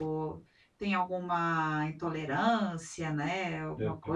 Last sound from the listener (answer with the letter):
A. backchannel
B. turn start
B